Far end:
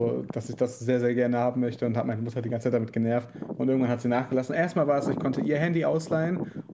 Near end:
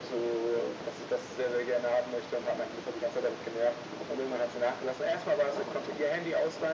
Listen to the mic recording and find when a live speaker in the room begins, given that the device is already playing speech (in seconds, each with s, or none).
none